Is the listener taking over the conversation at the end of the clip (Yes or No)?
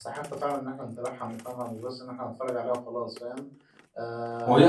Yes